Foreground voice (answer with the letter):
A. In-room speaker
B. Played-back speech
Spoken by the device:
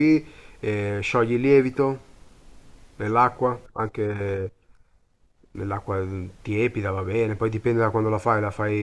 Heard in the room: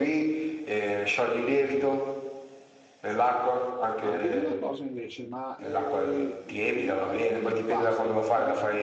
B